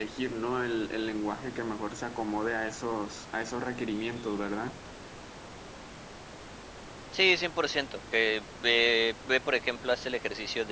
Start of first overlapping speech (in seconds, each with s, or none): none